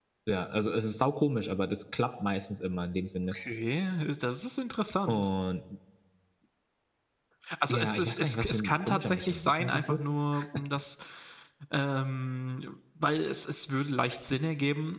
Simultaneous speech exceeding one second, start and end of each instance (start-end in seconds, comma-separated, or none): 7.7-10.0